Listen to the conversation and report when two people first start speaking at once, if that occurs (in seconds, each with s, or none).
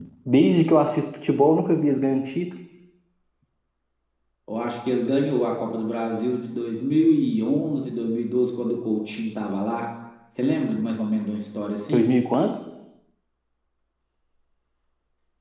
none